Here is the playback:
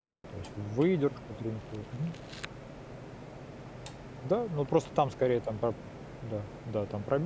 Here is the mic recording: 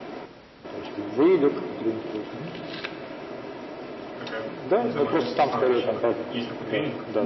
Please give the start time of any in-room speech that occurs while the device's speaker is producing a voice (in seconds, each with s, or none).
4.2 s